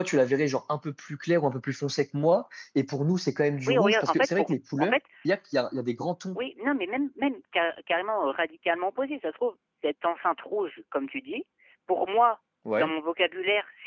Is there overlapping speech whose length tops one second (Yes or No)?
Yes